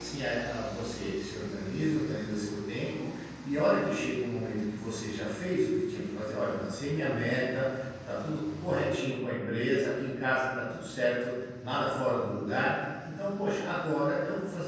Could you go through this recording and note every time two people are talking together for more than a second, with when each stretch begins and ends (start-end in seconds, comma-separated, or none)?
none